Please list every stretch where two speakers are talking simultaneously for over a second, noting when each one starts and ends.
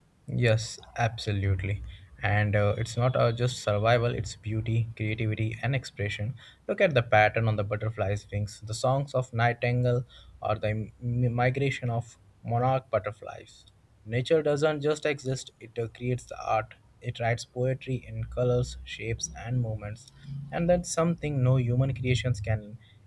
none

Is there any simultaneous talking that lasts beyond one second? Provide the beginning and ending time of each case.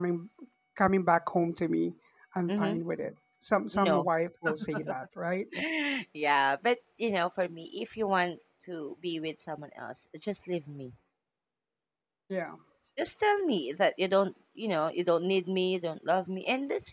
none

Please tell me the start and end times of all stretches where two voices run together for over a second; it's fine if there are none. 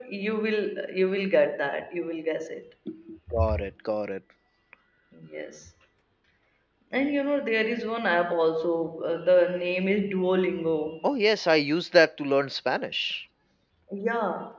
none

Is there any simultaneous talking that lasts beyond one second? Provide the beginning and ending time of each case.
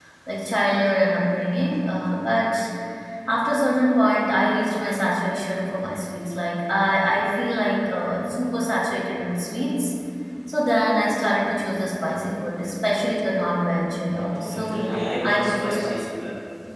14.3-16.1

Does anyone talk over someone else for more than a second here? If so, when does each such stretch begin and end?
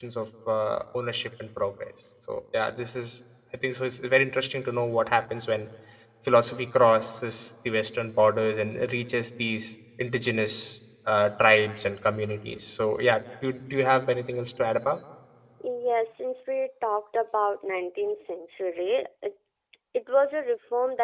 none

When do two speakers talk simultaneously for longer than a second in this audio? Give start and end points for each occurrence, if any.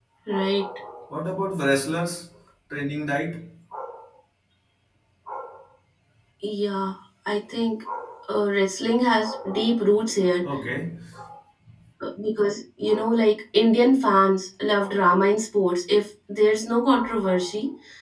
none

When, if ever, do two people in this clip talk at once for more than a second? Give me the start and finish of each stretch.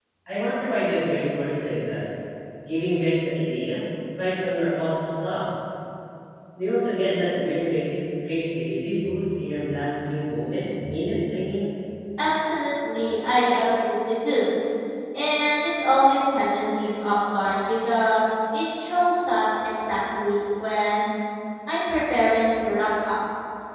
none

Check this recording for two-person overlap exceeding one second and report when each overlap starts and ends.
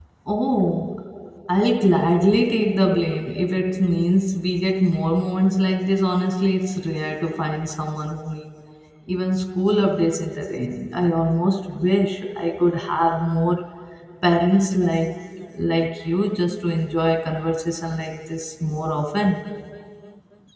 none

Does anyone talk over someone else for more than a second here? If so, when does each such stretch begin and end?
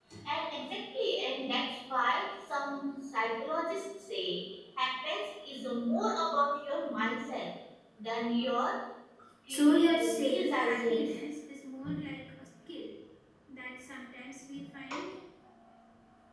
9.5-11.0

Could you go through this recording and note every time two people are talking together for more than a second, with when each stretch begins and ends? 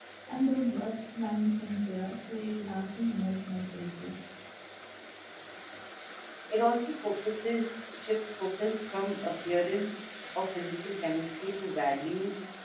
none

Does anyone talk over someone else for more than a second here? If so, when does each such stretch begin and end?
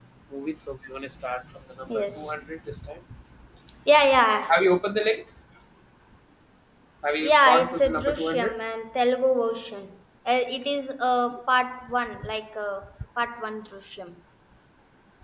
7.2-8.5

